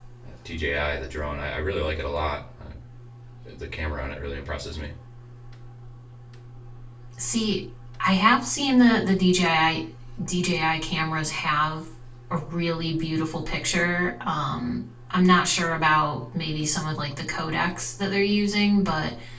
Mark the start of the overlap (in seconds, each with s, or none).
none